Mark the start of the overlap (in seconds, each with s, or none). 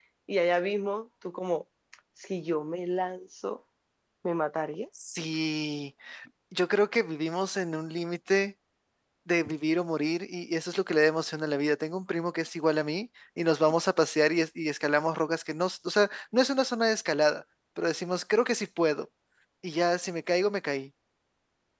none